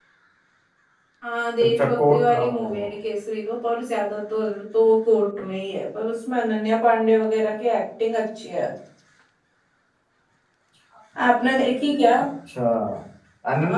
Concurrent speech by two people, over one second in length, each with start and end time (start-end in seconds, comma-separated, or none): 1.6-2.9